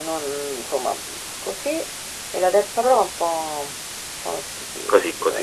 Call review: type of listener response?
taking over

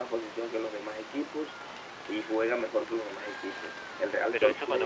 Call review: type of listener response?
taking over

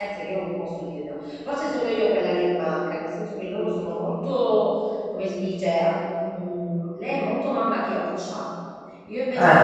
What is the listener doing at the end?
listening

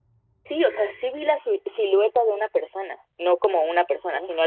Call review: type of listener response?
listening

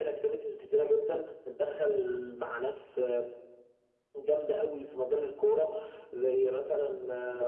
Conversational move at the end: taking over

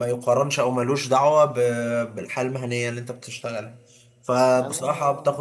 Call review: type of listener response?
listening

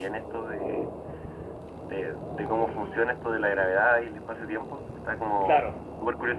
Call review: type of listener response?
listening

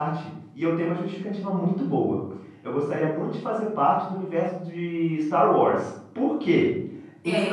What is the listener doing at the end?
listening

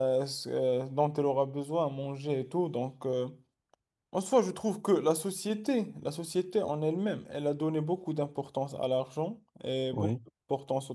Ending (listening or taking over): listening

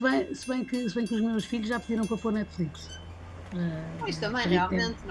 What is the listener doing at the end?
taking over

